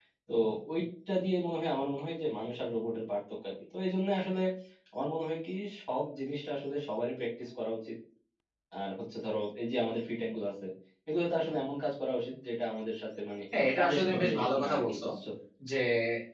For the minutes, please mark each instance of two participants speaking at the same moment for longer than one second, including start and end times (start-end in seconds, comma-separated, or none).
13.8-15.0